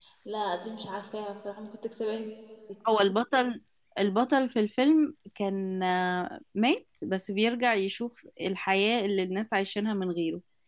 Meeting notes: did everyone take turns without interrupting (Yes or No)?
Yes